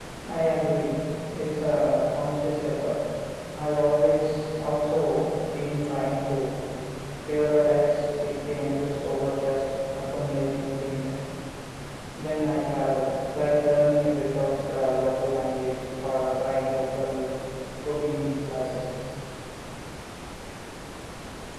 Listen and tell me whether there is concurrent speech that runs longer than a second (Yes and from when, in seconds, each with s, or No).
No